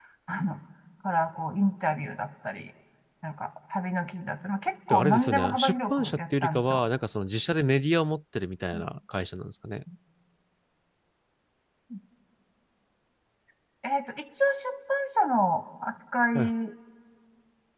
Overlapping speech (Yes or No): Yes